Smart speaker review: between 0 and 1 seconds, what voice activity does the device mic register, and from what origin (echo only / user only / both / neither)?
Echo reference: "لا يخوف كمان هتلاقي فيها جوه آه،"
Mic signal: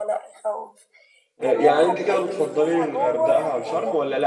echo only